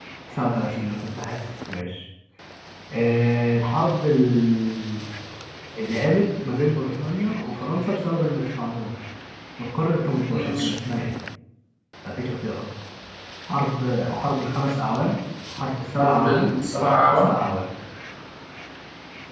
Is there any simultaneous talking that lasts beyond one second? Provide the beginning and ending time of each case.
16.0-17.3

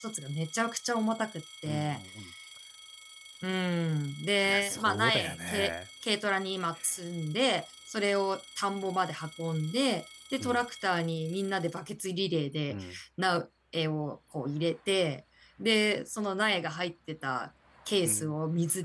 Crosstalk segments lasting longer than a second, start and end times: 4.5-5.7

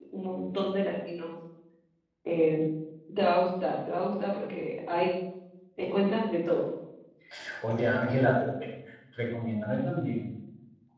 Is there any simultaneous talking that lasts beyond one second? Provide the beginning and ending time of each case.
none

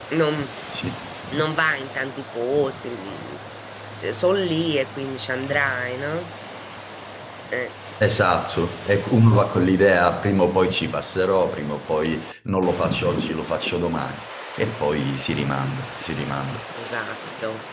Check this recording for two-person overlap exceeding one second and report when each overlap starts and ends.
none

